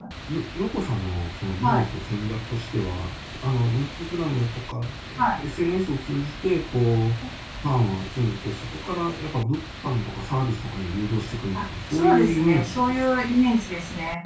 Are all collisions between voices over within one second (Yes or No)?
No